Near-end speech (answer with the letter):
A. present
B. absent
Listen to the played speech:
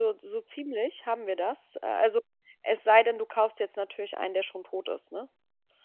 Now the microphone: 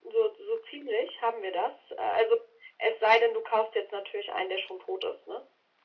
B